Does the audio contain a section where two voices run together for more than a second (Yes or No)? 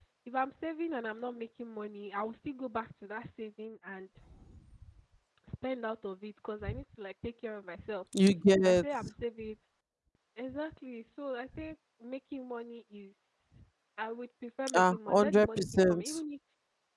Yes